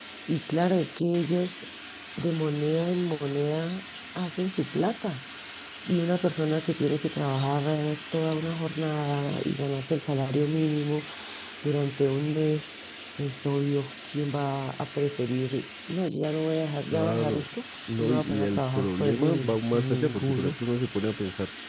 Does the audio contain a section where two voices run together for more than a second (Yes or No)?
Yes